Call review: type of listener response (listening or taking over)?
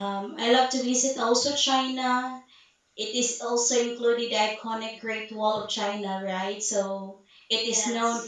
listening